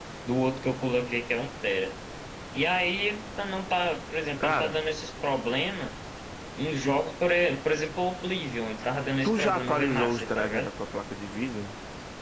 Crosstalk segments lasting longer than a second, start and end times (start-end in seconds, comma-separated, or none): 9.2-10.7